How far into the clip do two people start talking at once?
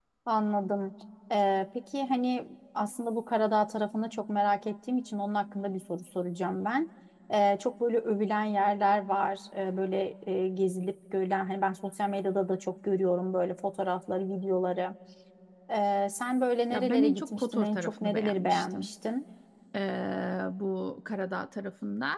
16.7 s

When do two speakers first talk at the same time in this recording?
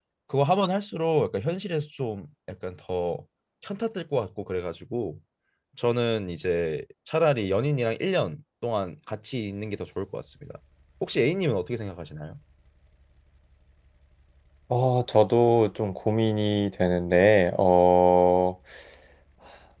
none

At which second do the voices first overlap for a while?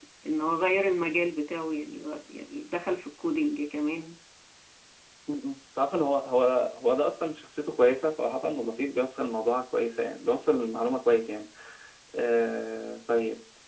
none

